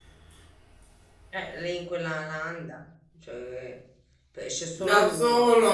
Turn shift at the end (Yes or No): Yes